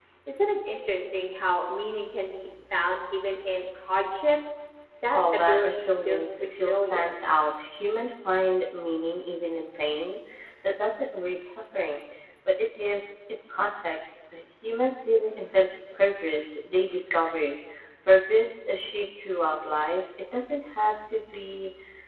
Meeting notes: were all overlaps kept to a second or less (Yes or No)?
No